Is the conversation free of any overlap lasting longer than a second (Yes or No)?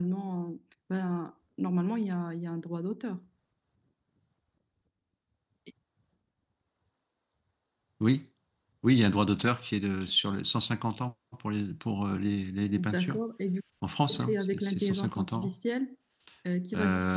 No